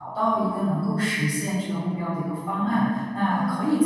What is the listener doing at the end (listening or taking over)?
listening